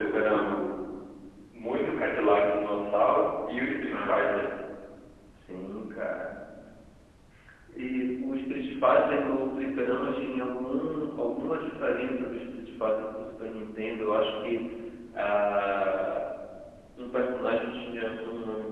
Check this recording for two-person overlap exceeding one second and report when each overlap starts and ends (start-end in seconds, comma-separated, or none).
none